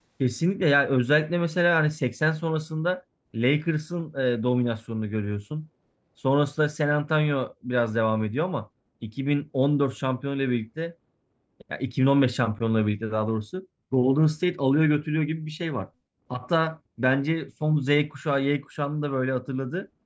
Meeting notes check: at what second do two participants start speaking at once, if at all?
none

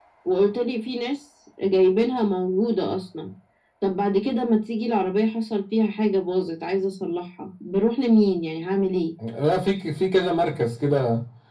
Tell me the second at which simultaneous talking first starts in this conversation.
none

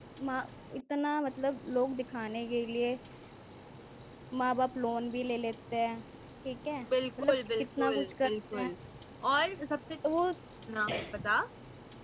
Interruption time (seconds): 7.2 s

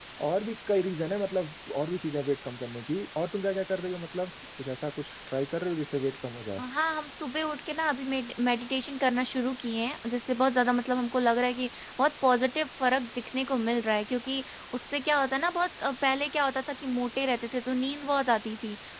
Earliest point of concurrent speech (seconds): none

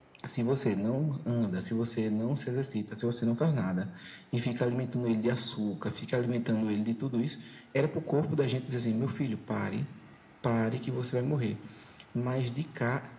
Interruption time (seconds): none

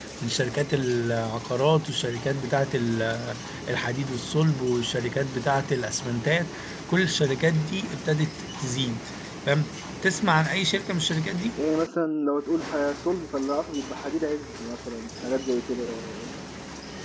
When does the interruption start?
none

